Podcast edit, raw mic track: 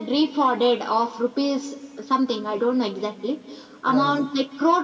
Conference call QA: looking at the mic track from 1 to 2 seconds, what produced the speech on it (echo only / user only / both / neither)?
echo only